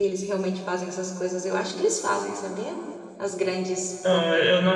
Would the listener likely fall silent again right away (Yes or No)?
No